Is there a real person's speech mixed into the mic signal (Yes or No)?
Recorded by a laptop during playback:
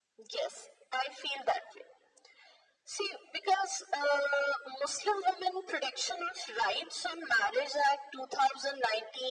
No